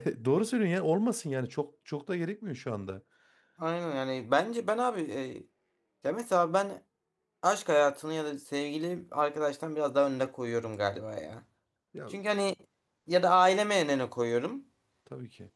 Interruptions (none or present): none